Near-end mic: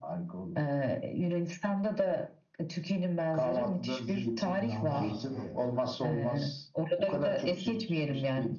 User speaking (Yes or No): Yes